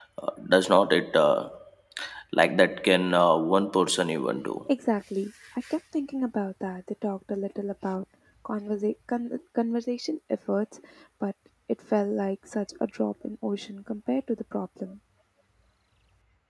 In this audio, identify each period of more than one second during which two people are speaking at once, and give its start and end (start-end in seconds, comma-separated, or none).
none